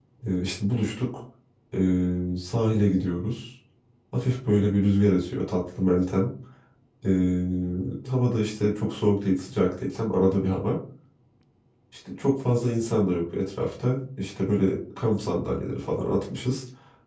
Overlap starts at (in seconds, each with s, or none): none